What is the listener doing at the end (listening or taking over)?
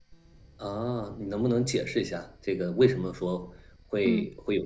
listening